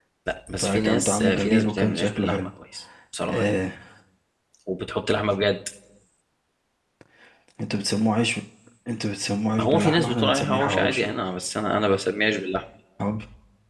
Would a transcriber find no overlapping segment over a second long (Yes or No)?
No